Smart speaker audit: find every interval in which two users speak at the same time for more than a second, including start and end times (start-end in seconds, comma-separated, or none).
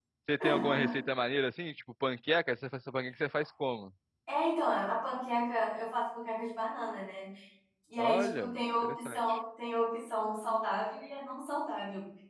8.0-9.4